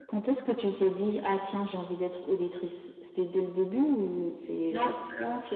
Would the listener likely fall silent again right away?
No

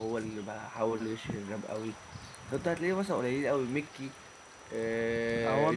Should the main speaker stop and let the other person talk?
Yes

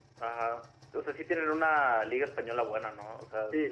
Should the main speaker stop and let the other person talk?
Yes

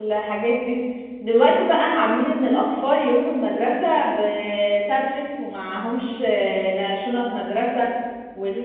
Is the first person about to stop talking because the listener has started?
No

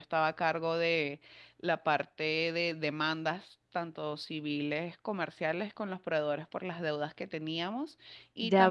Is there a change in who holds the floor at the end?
Yes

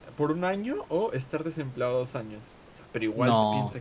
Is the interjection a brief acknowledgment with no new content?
Yes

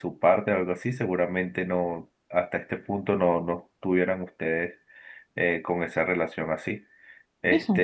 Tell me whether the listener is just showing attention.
Yes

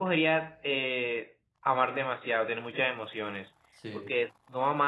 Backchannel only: Yes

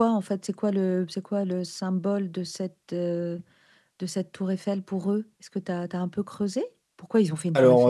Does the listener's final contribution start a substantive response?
Yes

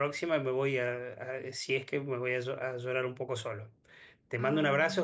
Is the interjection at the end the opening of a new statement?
No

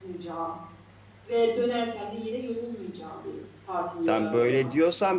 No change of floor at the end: No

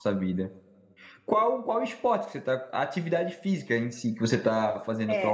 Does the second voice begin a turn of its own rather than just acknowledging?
Yes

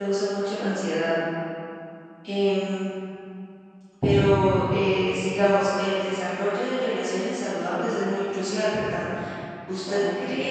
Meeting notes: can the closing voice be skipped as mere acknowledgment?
Yes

